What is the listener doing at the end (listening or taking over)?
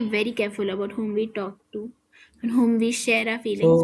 listening